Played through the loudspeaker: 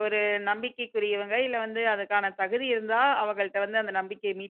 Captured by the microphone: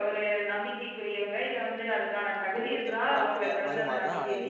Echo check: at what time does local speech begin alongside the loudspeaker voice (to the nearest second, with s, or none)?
3 s